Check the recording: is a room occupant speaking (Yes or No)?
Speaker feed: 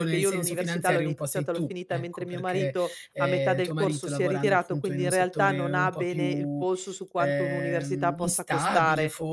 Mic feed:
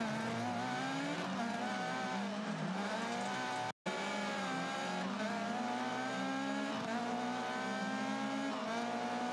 No